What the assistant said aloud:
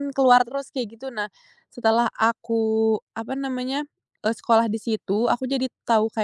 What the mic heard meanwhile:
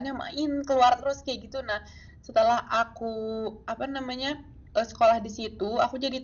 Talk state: echo only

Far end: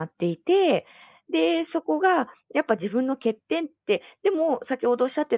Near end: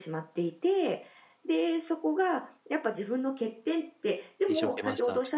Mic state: both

